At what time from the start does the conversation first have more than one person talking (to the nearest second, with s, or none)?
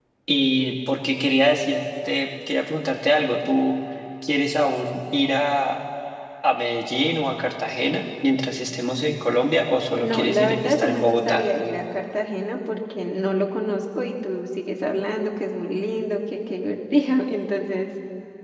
10 s